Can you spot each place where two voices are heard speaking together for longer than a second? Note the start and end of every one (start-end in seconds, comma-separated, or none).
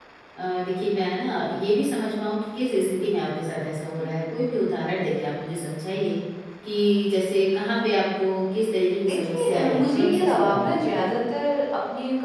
9.1-11.1